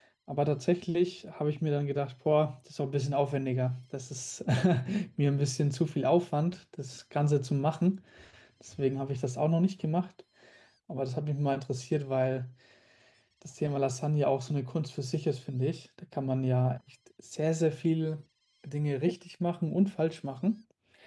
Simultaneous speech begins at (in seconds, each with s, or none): none